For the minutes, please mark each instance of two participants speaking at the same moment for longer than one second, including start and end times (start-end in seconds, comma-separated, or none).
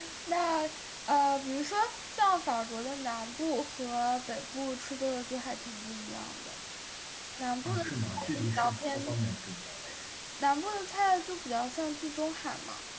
7.6-9.1